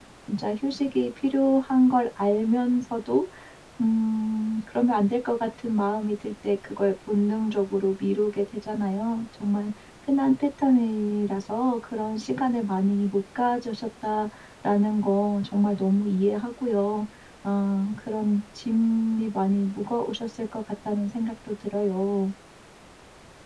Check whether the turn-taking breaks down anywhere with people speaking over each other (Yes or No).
No